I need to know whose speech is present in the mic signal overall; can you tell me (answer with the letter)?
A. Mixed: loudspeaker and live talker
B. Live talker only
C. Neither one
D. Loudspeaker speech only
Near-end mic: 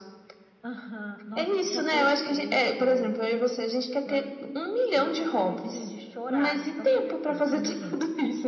D